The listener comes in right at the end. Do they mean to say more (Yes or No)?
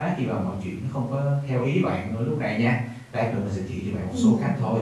No